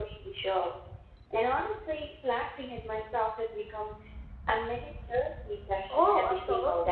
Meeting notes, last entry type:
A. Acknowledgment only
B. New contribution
B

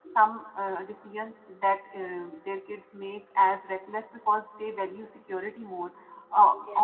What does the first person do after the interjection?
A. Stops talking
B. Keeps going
B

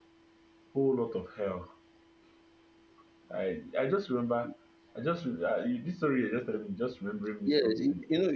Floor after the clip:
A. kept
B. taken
B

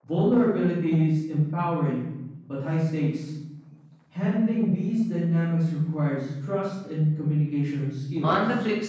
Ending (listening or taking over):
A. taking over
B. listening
A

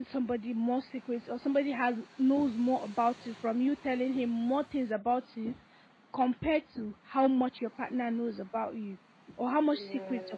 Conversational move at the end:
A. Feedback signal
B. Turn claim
A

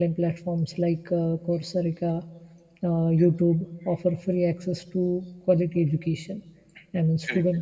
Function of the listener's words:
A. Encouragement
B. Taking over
A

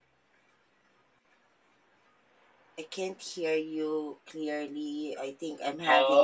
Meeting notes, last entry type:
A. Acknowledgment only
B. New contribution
B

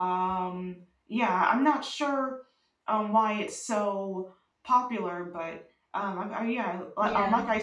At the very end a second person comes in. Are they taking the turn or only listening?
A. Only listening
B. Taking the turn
A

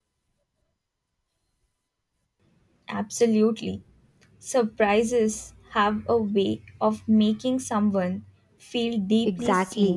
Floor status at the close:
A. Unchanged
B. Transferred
B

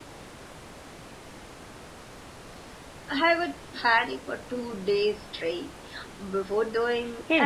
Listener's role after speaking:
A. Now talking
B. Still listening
A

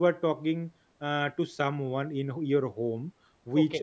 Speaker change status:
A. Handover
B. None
B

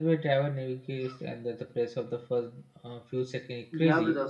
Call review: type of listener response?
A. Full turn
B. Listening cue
A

